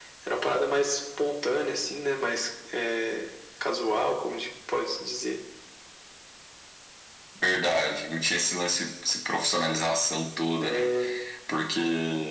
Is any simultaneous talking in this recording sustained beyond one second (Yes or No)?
No